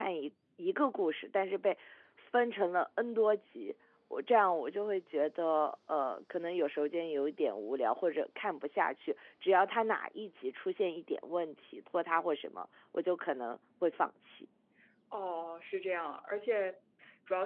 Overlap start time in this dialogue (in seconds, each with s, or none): none